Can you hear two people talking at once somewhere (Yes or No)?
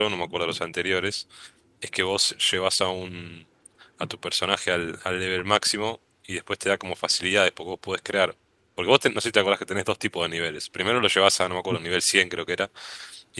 No